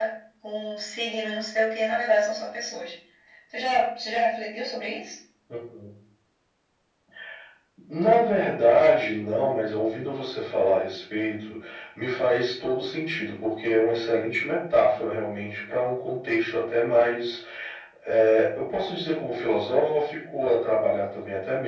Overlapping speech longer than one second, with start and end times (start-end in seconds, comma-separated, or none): none